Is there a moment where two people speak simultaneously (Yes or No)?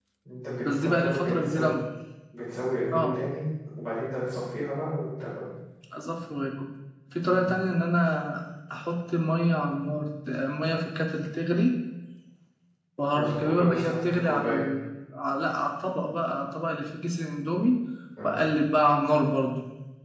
Yes